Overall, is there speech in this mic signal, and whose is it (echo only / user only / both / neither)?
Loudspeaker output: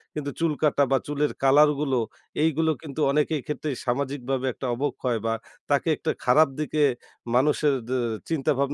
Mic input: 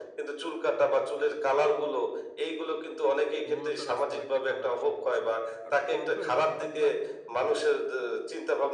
both